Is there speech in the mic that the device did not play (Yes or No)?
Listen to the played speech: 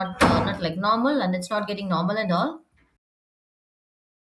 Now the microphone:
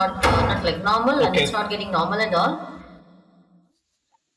Yes